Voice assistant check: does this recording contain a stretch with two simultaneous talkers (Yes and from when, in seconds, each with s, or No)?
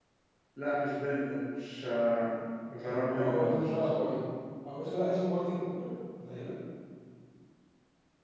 Yes, from 2.8 s